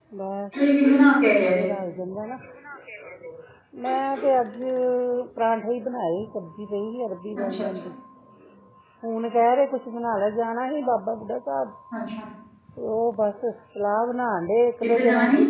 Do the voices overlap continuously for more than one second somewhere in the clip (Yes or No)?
No